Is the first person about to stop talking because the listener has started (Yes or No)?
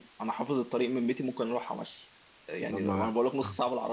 No